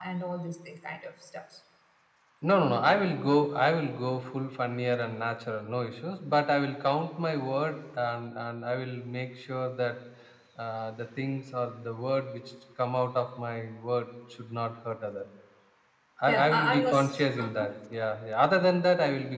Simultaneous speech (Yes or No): Yes